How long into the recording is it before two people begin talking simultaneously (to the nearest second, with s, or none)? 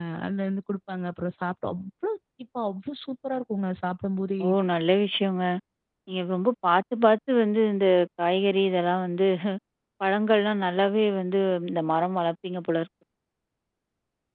none